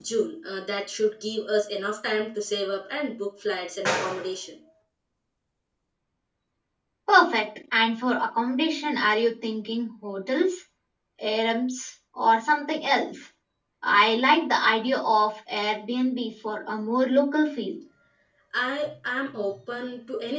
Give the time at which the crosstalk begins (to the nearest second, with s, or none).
none